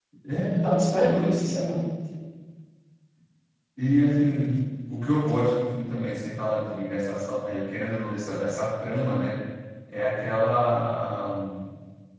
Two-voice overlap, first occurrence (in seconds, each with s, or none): 0.6 s